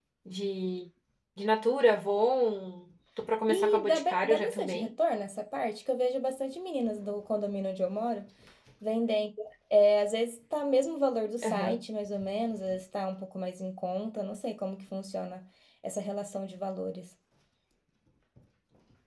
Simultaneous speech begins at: 3.5 s

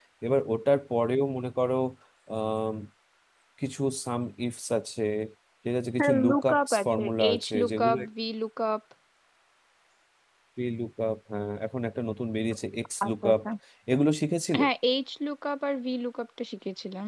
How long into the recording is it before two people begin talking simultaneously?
6.0 s

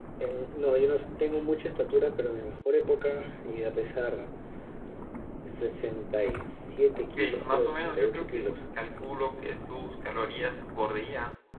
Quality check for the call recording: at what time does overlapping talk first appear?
7.1 s

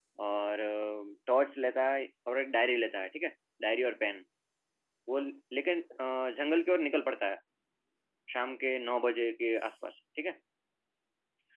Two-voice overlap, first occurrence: none

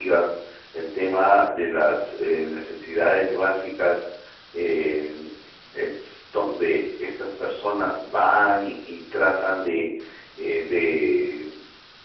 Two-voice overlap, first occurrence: none

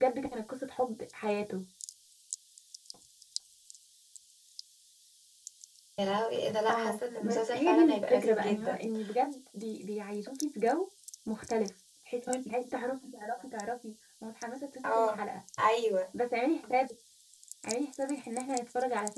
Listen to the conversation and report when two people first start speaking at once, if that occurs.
6.7 s

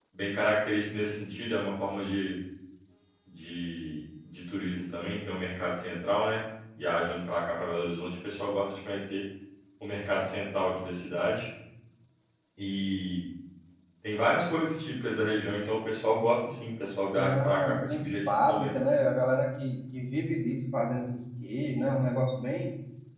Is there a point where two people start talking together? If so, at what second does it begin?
17.1 s

